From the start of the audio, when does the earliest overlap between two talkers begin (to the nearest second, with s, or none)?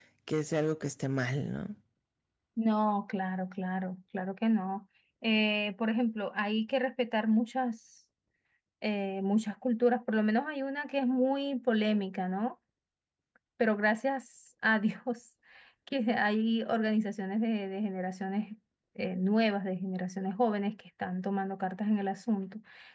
none